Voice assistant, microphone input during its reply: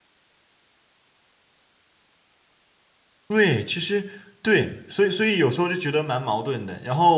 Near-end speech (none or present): present